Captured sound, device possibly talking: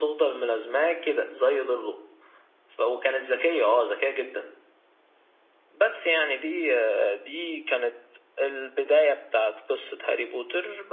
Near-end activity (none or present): none